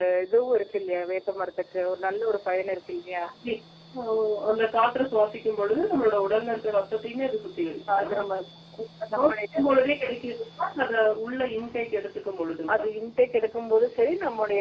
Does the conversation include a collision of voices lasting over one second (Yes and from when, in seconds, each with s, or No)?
No